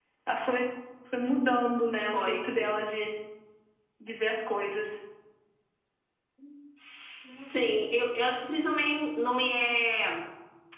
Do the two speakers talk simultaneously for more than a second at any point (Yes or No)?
No